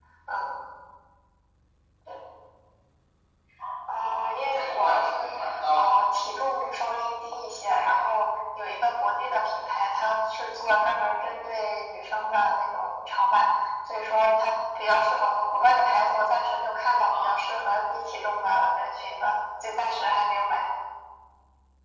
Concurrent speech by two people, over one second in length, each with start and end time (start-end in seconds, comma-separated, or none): 3.9-5.3